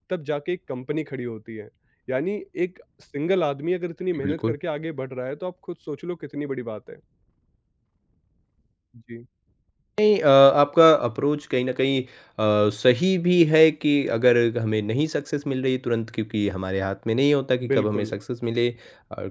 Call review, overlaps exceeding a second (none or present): none